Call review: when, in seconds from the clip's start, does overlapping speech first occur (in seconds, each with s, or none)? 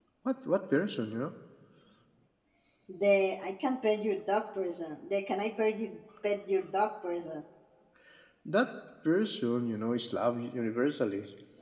none